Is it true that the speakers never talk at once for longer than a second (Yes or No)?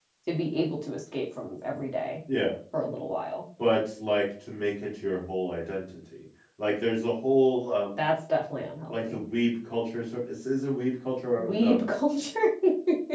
Yes